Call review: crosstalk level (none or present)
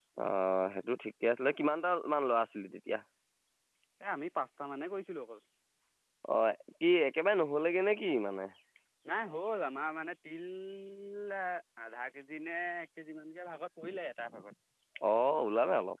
none